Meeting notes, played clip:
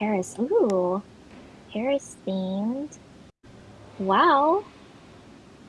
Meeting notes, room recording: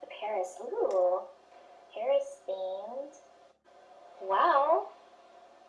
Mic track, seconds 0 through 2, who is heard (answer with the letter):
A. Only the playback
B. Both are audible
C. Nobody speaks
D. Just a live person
A